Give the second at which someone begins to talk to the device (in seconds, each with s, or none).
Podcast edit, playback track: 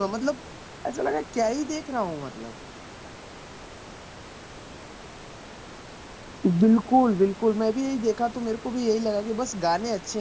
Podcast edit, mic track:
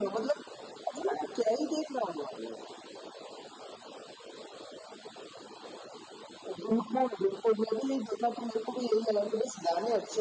none